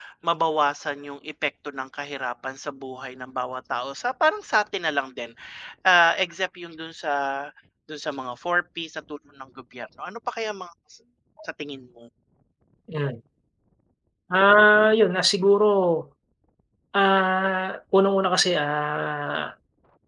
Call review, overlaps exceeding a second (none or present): none